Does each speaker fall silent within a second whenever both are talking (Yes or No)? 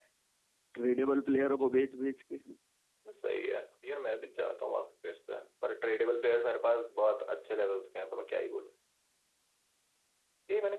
Yes